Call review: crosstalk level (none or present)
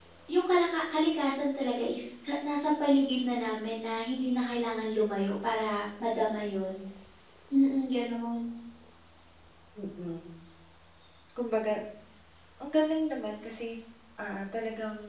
none